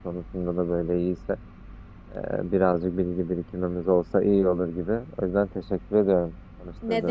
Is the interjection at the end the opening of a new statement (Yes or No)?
Yes